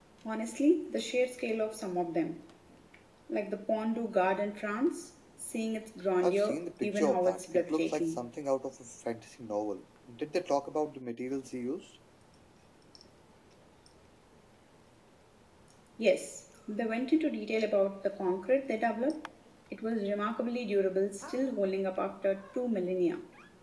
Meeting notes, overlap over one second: present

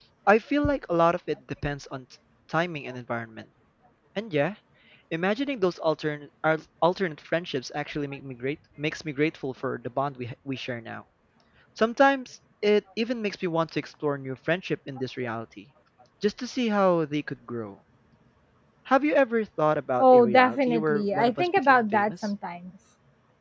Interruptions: present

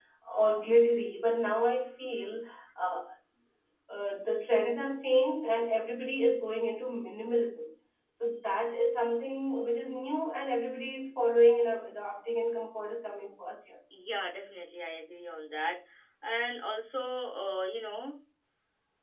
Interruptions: none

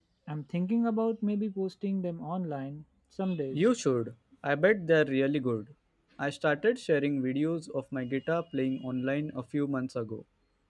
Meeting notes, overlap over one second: none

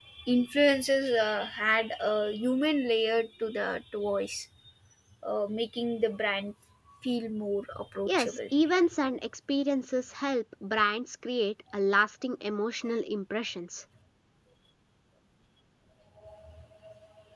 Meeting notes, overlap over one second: none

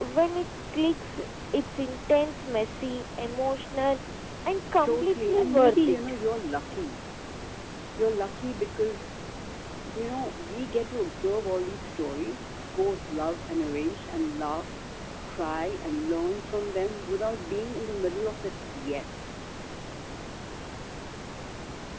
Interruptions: present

